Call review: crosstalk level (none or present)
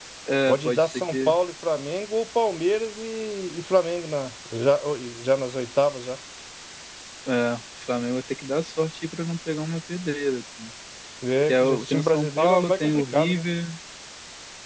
present